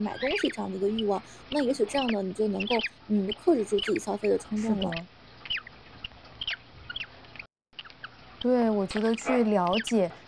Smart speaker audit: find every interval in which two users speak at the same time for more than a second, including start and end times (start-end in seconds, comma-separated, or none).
none